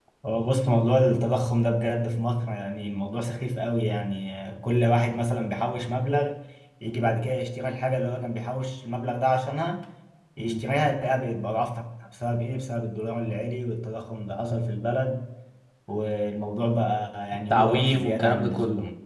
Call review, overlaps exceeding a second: present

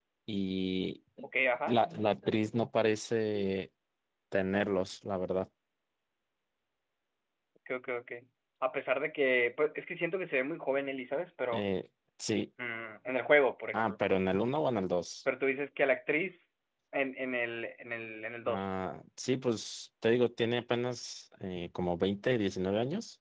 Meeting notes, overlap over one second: none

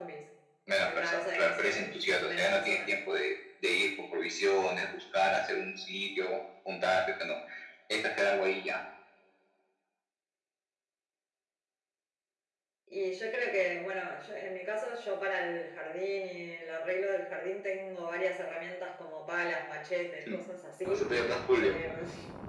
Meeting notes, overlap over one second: present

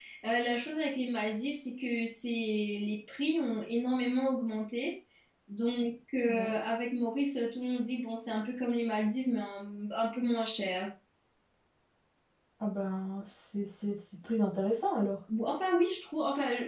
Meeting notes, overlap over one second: none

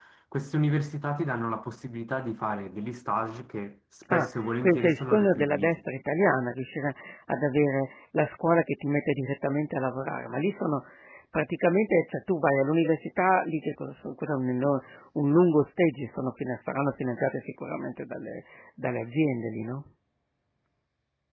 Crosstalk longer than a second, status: present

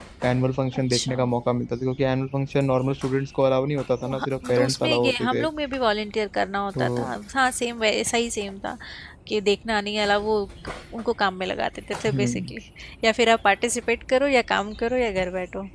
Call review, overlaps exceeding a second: present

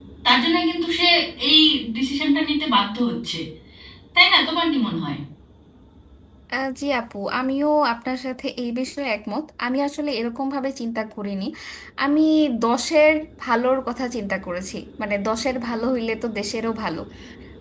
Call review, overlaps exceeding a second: none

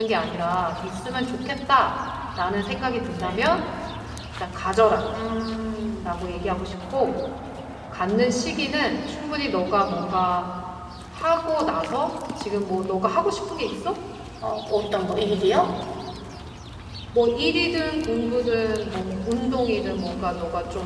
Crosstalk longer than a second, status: none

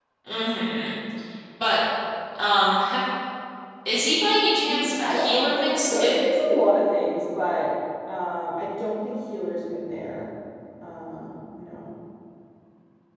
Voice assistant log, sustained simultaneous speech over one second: present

